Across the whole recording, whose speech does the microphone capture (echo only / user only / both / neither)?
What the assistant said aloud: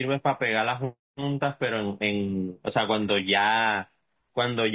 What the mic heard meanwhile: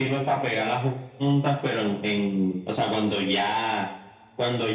echo only